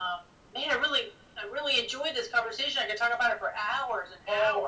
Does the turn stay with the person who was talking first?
No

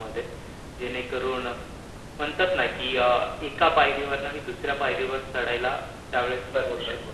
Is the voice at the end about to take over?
Yes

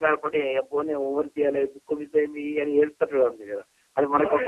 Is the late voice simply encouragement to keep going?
No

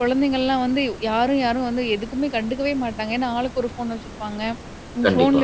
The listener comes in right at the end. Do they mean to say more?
No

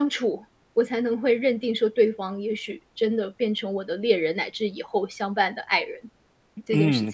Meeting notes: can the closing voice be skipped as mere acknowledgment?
No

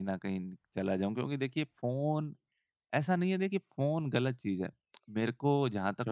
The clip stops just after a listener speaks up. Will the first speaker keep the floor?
Yes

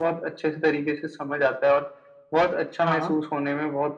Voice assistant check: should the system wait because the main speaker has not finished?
Yes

